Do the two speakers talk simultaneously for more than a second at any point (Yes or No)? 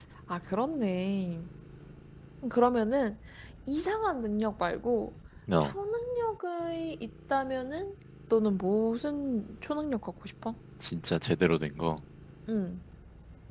No